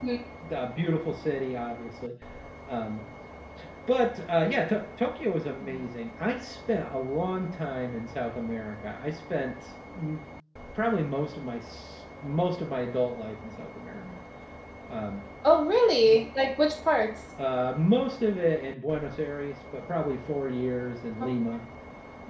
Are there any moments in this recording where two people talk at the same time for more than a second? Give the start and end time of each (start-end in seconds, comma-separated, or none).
none